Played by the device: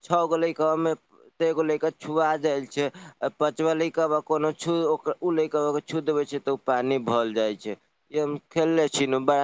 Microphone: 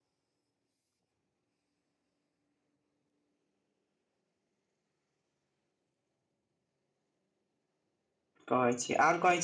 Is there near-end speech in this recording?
Yes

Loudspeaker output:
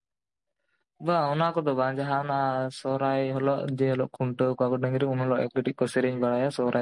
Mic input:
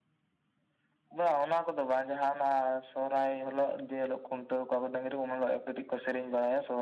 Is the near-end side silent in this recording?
Yes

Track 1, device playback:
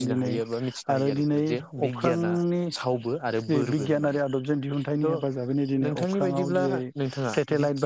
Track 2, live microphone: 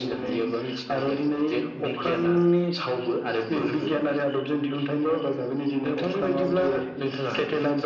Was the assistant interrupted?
No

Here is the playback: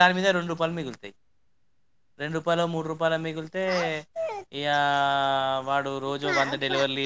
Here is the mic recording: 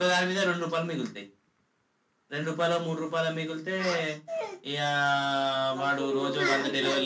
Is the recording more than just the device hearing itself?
Yes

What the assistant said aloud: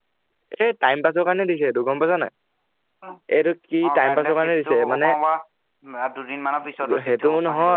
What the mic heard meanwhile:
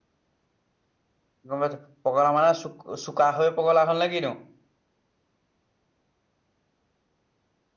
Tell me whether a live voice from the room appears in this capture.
Yes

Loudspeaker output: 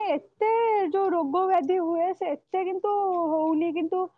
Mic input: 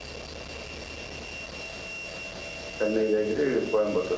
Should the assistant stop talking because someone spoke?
Yes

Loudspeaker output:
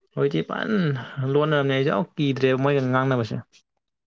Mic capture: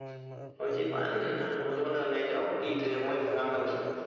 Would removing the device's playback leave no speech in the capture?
No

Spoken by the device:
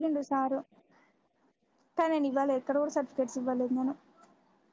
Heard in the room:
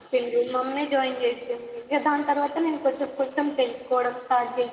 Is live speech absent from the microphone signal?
No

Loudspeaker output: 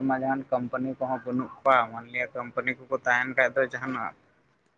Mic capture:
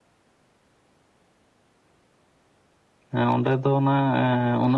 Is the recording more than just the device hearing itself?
Yes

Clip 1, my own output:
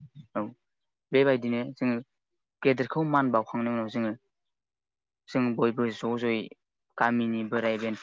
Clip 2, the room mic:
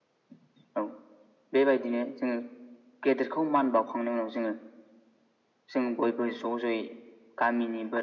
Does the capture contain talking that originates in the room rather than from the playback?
No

